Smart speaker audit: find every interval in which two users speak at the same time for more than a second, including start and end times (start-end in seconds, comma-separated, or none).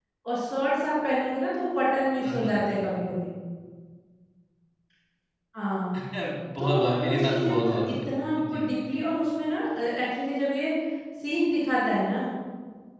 6.6-7.9